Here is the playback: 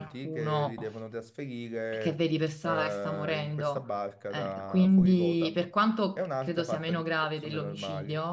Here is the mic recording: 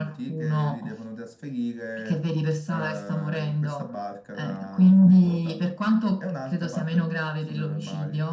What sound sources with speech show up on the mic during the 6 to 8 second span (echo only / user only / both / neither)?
echo only